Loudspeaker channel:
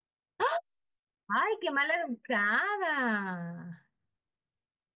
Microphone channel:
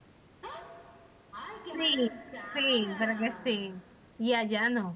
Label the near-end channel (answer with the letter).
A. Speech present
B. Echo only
A